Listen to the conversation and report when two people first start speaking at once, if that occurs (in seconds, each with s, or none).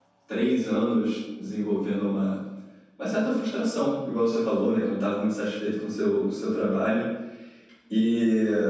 none